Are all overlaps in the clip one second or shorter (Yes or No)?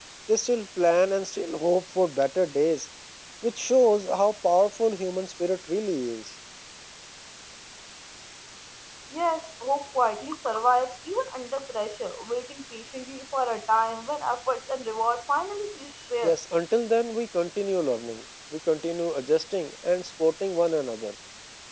Yes